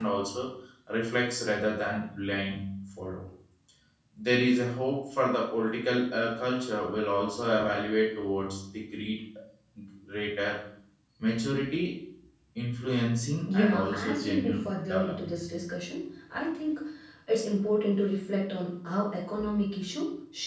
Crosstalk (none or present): present